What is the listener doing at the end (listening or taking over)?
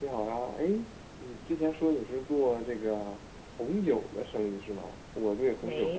listening